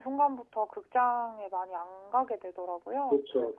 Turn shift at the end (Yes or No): Yes